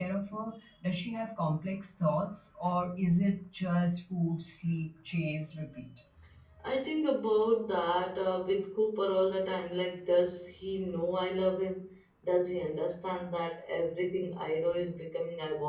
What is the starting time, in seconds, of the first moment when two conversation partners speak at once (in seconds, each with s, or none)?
none